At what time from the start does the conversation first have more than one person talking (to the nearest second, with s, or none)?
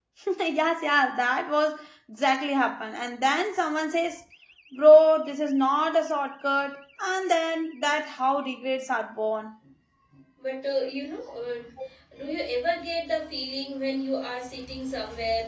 none